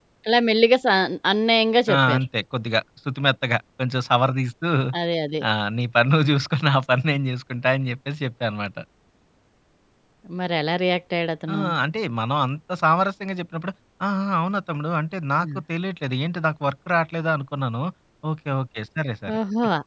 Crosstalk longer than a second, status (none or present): none